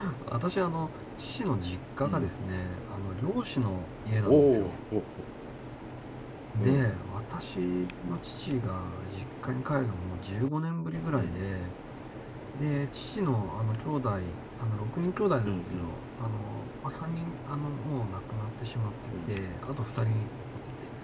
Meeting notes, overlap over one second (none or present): none